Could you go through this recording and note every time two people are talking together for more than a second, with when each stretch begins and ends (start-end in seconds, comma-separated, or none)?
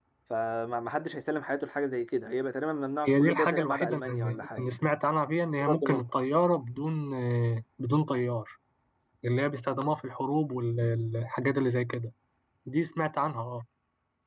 3.0-4.6